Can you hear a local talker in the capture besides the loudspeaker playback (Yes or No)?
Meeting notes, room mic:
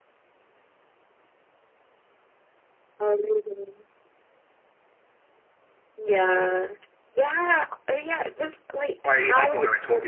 Yes